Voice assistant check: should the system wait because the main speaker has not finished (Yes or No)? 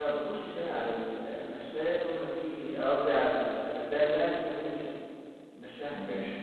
No